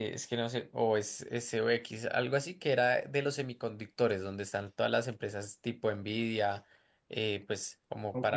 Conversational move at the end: listening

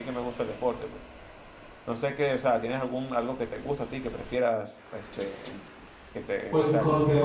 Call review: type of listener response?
taking over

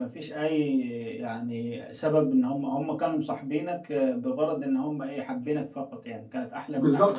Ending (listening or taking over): taking over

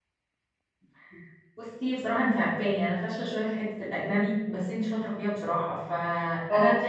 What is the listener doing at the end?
listening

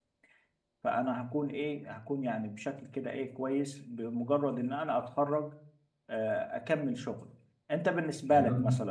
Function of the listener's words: listening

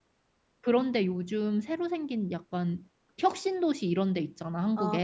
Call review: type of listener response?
taking over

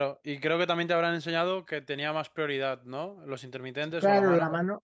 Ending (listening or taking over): taking over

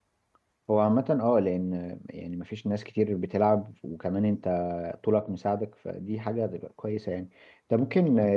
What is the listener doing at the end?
listening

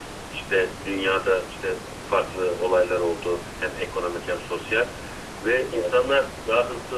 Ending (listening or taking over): listening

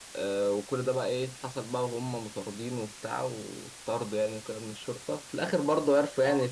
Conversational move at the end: listening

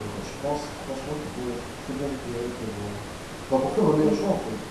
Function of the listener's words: taking over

